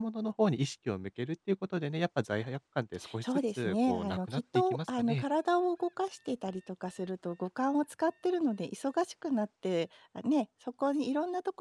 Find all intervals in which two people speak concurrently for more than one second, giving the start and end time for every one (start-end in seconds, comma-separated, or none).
3.2-5.2